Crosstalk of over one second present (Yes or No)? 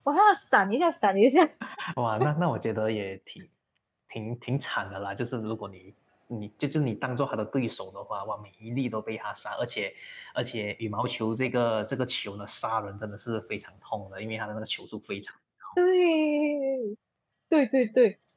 No